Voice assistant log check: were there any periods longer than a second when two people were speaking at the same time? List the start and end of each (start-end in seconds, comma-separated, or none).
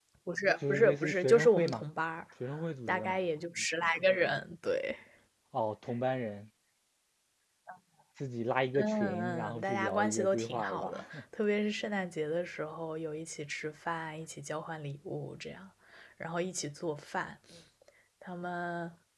0.6-1.8, 8.8-11.0